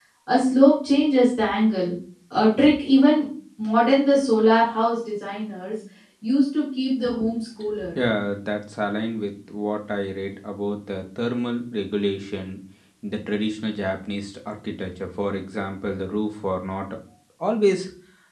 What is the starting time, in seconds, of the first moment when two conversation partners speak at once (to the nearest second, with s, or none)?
none